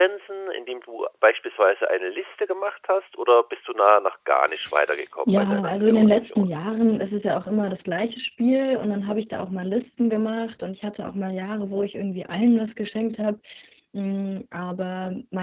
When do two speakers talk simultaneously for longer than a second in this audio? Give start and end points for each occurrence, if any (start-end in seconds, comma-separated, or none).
5.3-6.5